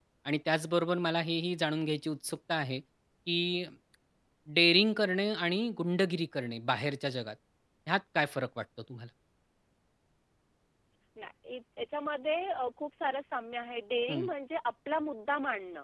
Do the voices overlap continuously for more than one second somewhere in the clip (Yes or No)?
No